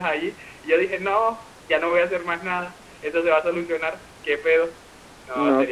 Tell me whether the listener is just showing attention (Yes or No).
No